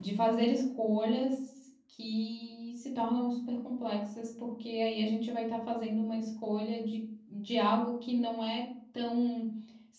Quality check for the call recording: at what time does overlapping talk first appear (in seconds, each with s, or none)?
none